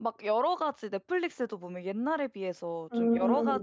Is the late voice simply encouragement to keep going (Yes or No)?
Yes